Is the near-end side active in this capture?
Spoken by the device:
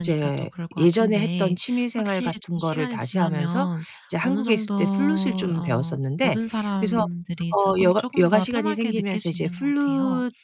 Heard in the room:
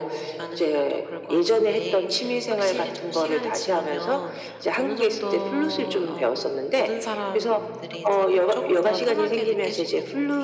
No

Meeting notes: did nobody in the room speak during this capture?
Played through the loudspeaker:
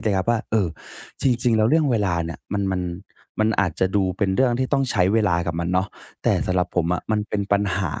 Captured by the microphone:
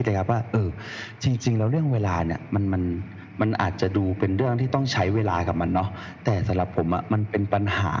Yes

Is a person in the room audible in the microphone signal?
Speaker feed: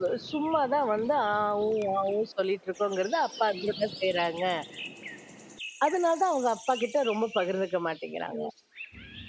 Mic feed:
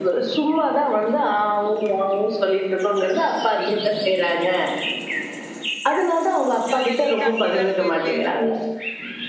Yes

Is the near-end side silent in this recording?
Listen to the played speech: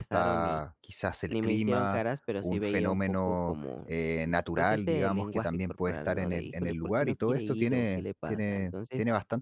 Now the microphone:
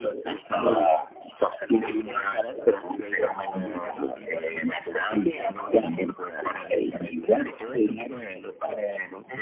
No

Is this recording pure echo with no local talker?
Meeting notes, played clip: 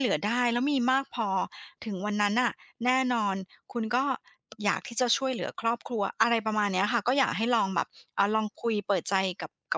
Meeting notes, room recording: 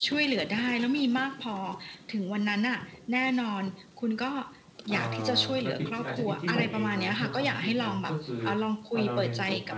No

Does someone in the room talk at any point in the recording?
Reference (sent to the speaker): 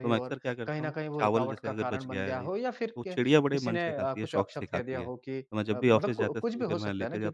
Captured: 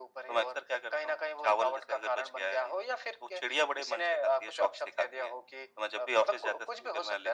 No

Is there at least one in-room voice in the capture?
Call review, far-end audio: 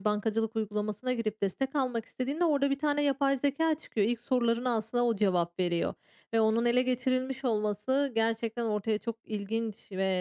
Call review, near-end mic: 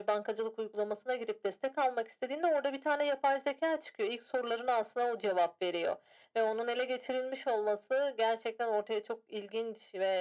No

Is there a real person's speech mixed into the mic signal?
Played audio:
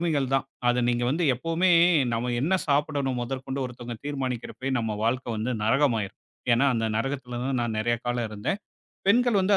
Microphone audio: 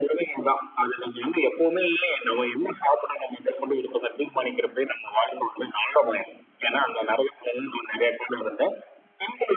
No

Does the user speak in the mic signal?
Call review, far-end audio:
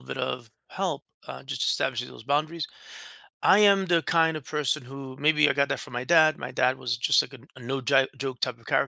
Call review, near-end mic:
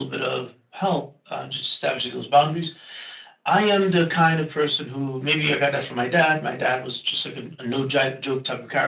No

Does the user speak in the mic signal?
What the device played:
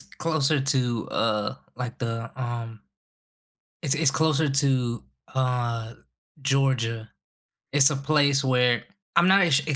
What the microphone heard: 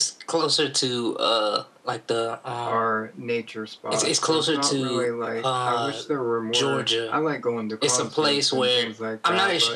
Yes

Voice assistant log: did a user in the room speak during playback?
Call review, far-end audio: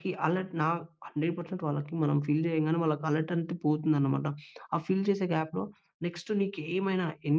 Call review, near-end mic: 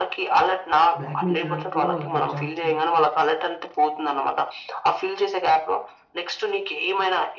Yes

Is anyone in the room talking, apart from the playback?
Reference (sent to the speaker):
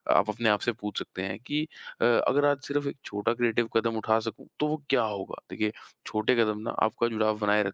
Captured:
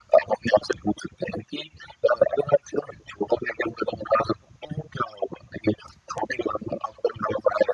No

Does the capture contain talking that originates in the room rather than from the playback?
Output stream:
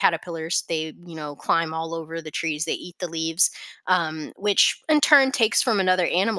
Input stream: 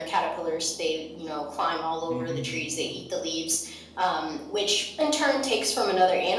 Yes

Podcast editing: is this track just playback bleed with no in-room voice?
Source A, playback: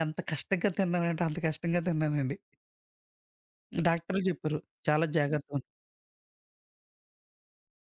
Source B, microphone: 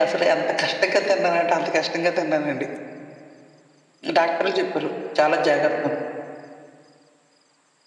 Yes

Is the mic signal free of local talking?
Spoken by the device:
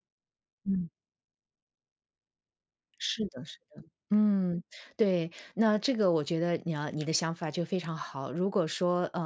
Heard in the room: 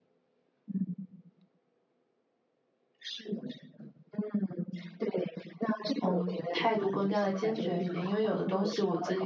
No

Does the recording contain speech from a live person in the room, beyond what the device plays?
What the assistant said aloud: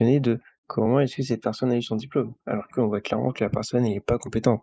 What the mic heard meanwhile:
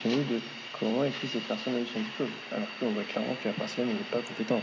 No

